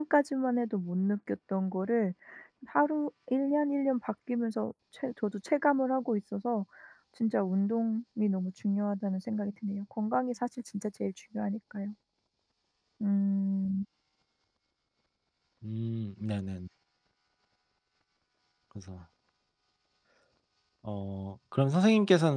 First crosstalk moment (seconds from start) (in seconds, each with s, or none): none